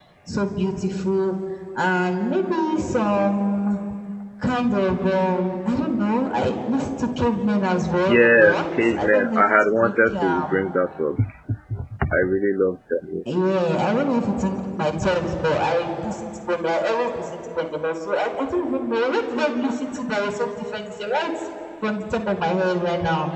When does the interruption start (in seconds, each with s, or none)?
8.1 s